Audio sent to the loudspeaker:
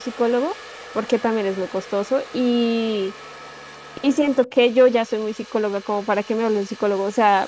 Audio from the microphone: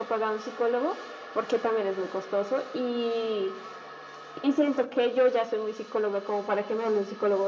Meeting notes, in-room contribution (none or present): none